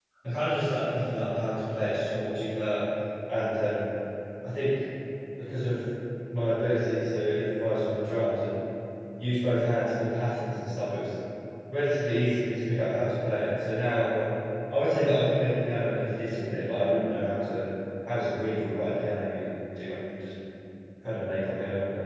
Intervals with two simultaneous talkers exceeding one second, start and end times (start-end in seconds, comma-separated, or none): none